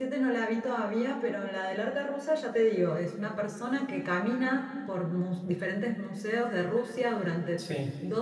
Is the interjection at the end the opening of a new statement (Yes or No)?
No